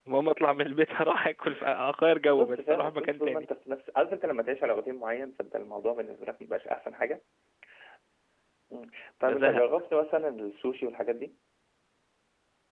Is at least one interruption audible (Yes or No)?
Yes